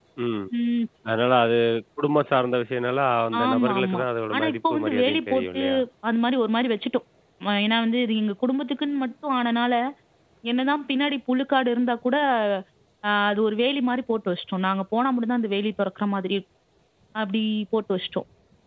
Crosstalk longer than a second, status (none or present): present